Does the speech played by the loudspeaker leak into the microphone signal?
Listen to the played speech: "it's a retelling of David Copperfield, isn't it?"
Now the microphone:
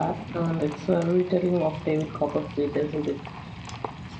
Yes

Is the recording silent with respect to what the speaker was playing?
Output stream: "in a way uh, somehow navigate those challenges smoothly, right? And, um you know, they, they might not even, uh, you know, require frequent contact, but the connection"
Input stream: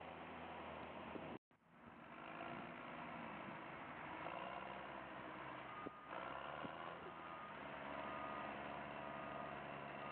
Yes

